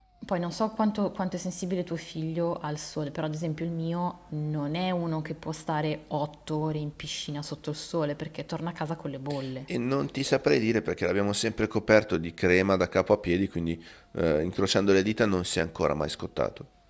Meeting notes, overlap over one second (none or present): none